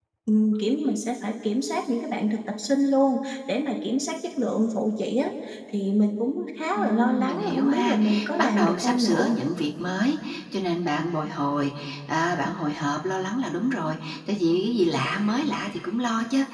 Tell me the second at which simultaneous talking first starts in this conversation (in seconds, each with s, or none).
6.8 s